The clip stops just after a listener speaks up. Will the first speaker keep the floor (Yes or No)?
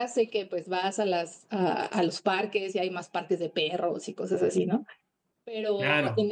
Yes